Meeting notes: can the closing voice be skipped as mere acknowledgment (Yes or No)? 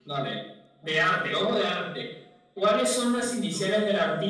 Yes